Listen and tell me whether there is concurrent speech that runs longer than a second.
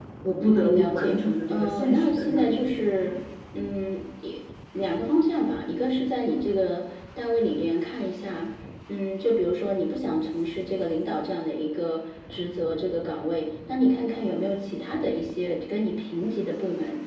Yes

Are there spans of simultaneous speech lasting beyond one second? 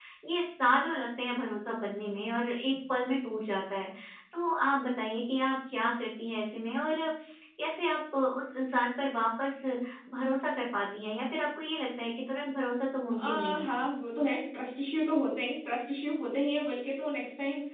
No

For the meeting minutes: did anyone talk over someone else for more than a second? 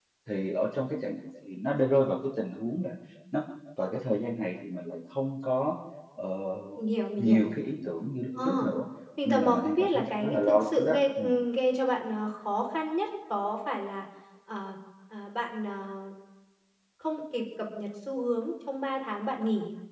Yes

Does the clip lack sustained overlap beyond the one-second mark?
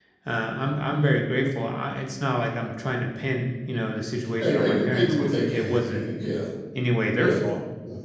No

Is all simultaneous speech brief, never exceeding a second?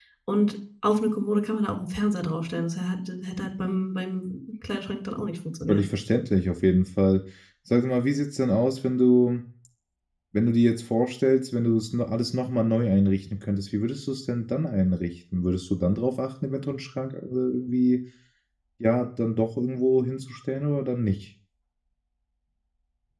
Yes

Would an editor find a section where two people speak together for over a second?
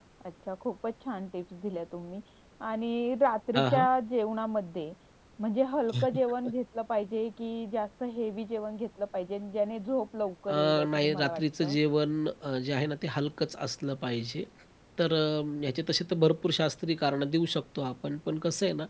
Yes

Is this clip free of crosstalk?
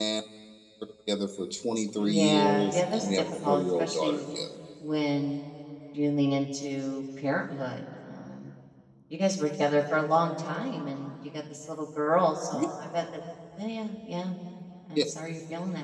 No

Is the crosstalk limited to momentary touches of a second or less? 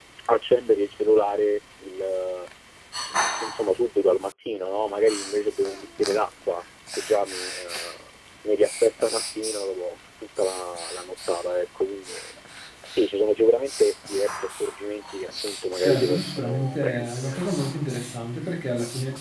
No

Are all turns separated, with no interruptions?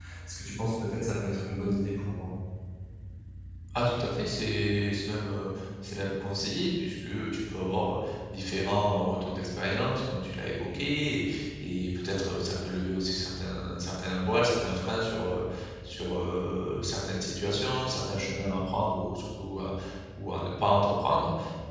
Yes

